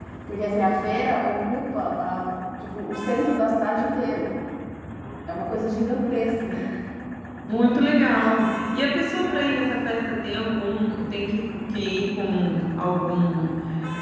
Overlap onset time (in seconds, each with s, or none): none